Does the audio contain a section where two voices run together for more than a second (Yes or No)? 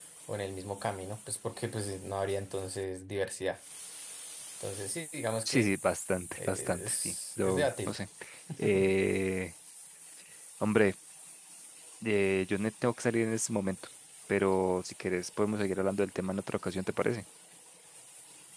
Yes